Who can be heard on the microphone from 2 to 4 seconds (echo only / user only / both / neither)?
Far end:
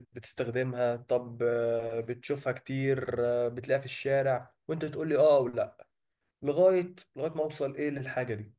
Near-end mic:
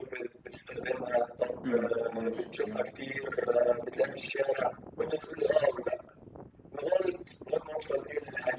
both